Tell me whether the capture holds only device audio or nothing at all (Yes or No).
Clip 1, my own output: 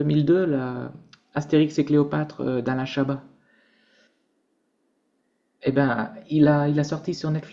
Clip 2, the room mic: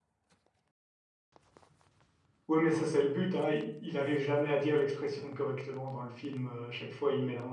No